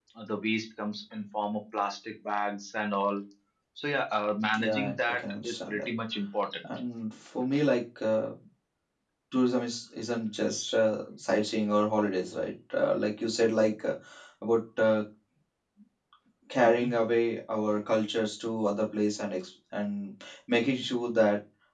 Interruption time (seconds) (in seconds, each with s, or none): 4.6 s